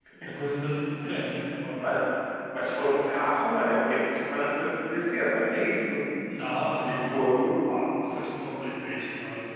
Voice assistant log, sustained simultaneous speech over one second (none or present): none